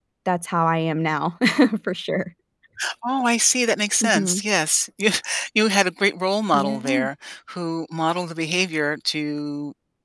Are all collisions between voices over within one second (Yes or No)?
Yes